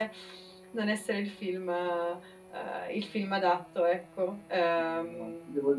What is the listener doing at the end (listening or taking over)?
taking over